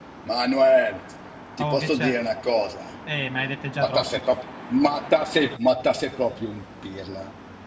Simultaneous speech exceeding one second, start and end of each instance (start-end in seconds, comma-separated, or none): none